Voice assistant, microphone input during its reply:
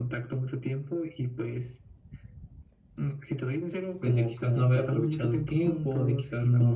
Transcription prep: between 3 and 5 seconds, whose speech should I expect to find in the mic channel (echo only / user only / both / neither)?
both